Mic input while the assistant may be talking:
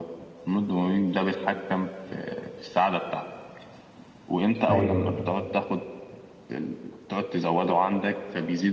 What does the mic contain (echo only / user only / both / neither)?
both